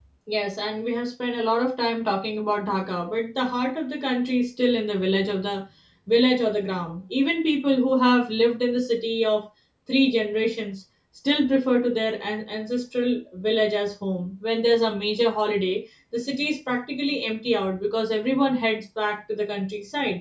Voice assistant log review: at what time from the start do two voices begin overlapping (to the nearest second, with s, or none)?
none